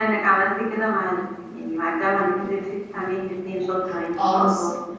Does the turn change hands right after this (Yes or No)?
Yes